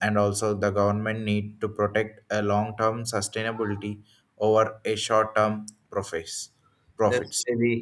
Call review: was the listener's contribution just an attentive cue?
No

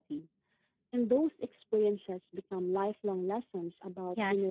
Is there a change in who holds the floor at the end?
Yes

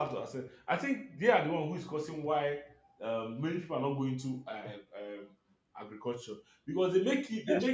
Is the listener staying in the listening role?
Yes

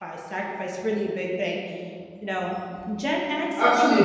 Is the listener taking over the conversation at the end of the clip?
Yes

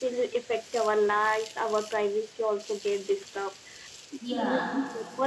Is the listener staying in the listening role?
Yes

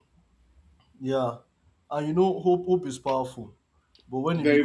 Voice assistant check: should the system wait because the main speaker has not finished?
Yes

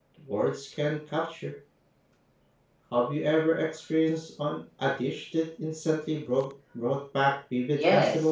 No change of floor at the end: No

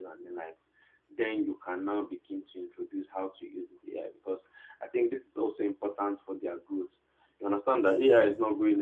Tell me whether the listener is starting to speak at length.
No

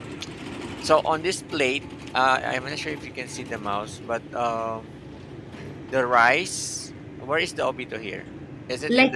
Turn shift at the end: Yes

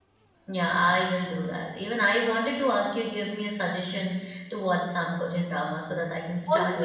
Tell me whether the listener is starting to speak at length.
Yes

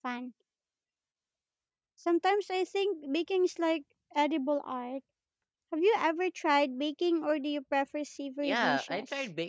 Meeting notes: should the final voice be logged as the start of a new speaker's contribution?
Yes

